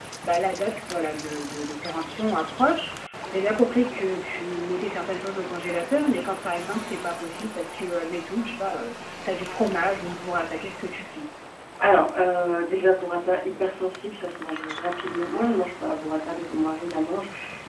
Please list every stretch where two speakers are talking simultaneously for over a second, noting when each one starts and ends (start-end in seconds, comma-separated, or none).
none